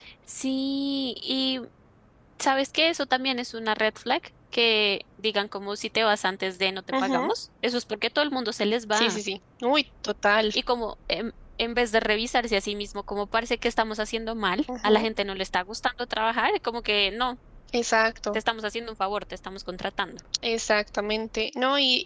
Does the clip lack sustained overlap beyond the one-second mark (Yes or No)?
Yes